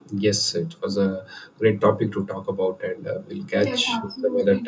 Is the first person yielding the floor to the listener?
Yes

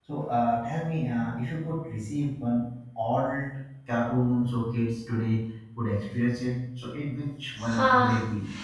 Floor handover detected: Yes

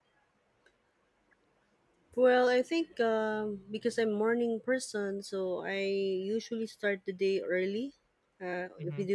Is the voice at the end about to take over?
No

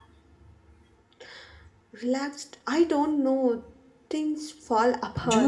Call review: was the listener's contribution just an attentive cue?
No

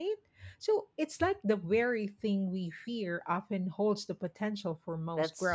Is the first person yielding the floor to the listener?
Yes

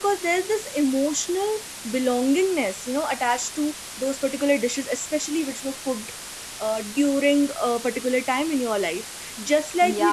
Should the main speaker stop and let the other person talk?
Yes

